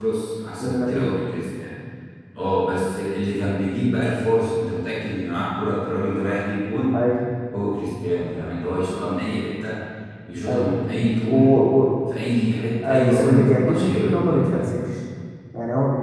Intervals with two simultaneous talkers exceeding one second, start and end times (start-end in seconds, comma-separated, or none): 12.8-14.8